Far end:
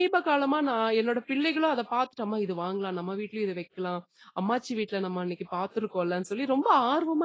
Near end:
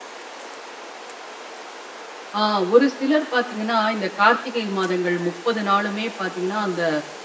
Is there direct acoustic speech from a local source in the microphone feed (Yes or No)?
Yes